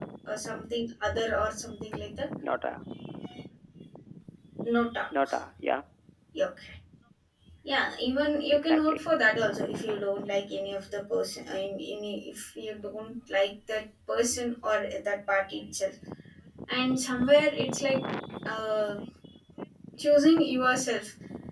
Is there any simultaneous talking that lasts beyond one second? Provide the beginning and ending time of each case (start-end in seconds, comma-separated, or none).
none